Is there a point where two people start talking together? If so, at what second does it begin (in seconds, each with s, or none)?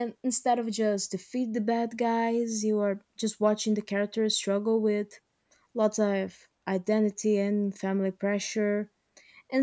none